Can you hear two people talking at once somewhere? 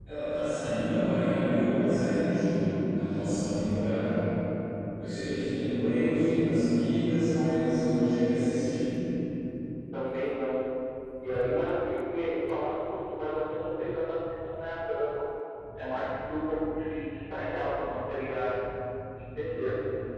No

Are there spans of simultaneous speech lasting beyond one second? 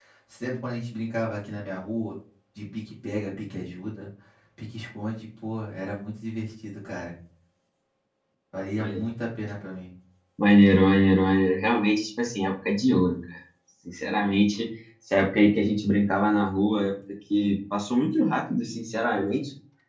No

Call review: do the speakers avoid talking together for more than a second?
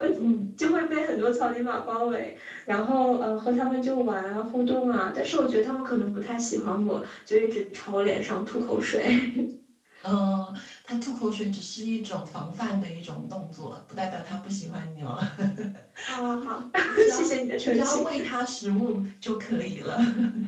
Yes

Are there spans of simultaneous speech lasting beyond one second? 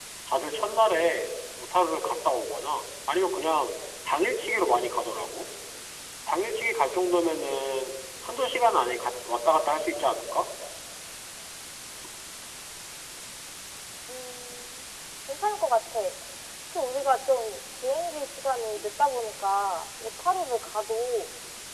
No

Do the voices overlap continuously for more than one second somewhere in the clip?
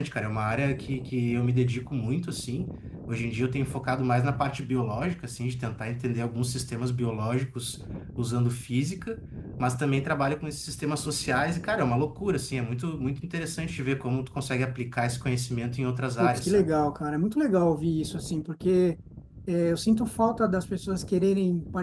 No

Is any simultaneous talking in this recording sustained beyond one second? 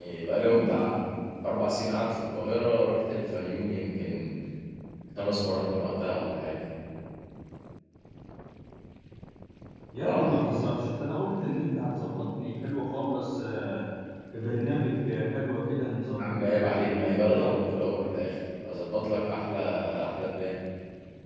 Yes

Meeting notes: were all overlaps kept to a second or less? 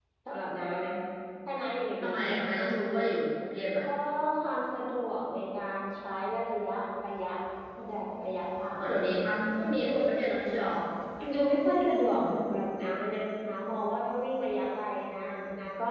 Yes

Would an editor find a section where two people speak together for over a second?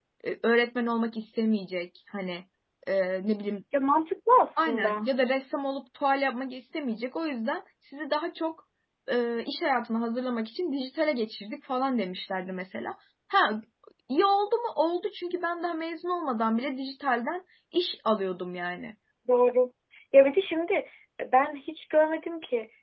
No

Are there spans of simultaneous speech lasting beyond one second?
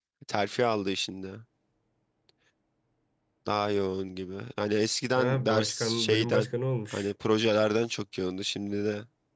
Yes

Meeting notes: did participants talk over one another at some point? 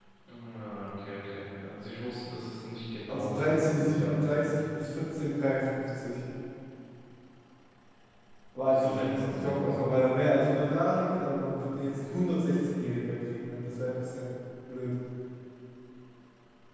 Yes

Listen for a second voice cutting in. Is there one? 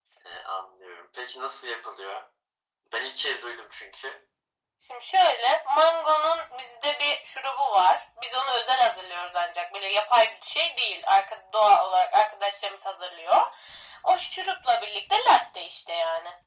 No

